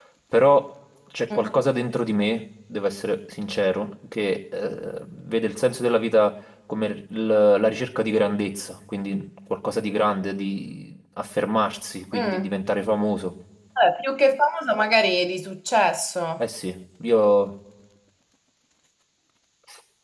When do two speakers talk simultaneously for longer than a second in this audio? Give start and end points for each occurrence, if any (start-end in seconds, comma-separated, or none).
none